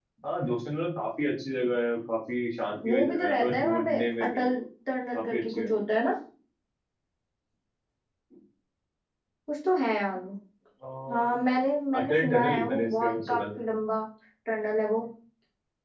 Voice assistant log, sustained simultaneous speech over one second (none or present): present